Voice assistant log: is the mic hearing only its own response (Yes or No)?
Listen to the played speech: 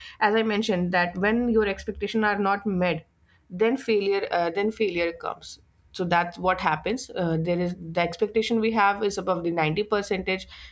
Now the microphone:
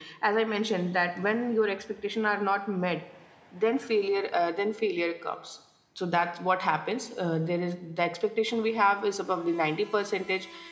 Yes